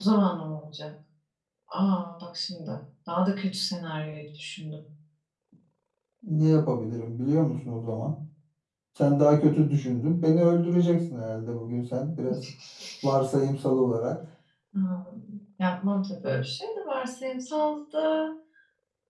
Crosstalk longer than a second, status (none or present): none